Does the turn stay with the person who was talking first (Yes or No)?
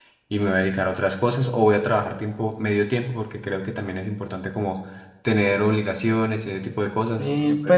No